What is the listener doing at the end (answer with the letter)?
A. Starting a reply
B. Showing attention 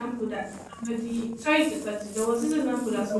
B